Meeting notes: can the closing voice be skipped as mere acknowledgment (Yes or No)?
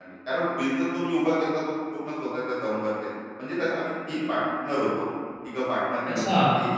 No